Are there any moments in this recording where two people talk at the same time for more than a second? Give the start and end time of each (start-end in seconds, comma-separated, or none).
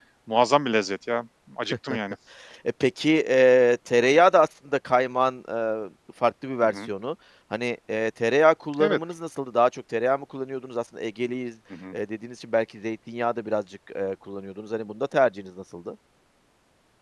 none